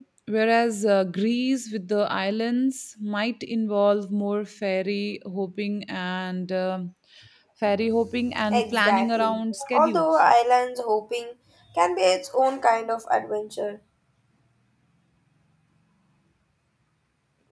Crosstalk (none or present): present